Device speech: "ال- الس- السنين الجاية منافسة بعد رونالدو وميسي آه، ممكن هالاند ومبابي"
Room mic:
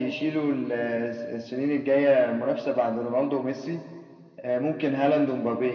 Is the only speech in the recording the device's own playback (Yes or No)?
Yes